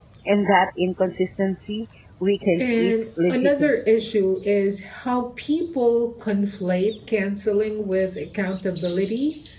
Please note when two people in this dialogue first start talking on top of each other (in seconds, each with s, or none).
2.6 s